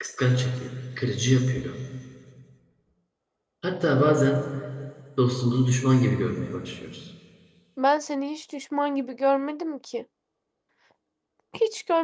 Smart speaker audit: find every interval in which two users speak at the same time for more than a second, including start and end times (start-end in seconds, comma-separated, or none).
none